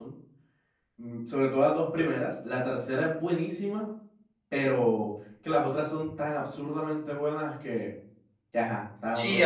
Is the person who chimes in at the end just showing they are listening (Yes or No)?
No